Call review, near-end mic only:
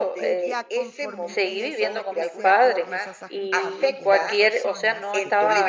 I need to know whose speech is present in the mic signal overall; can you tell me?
both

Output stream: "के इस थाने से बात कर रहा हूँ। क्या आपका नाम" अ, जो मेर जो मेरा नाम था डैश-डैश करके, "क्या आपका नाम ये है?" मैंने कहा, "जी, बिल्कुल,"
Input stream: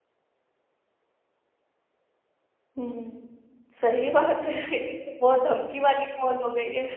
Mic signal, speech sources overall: user only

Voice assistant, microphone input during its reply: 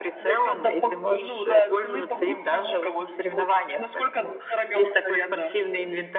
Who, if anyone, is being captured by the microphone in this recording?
echo only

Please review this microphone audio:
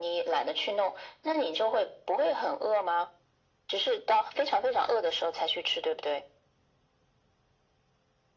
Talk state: echo only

